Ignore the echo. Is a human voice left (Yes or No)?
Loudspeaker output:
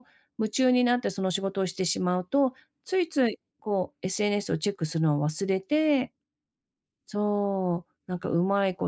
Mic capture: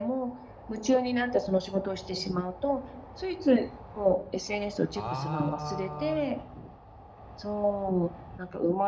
Yes